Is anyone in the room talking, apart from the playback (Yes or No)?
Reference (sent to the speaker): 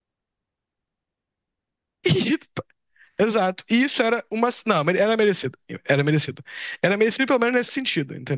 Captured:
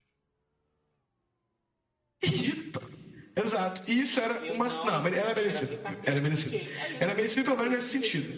Yes